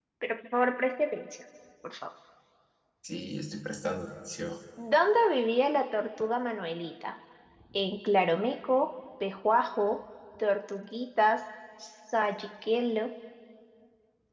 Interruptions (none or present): none